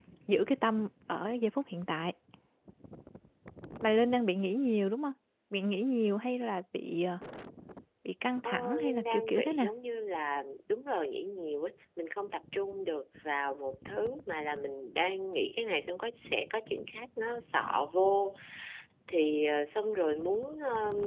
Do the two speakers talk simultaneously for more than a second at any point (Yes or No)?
Yes